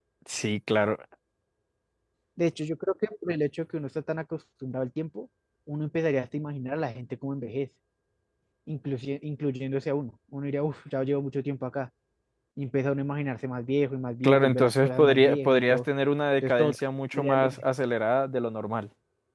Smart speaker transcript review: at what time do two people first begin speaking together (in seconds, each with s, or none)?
14.2 s